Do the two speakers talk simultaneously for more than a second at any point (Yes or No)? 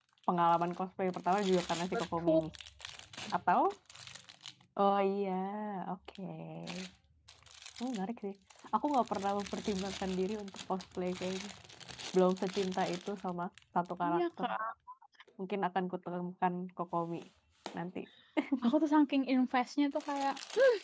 No